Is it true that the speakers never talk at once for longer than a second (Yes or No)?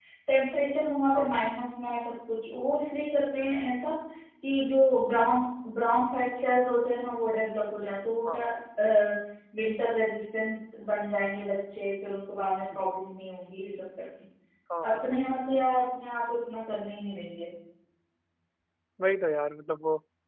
Yes